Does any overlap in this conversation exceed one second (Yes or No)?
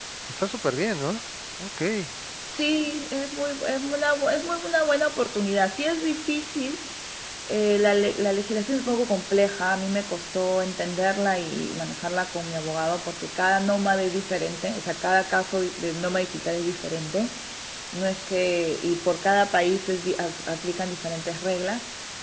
No